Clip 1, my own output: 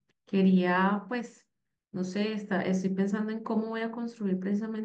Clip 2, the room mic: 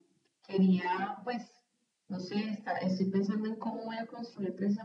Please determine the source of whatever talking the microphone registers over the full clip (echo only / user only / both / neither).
echo only